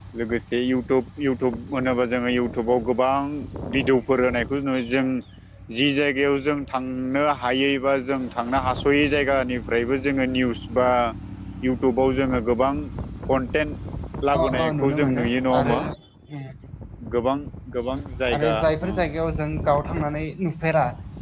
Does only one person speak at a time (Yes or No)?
No